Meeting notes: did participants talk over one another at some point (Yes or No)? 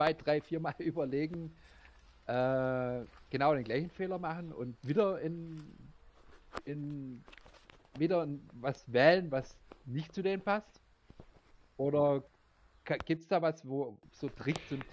No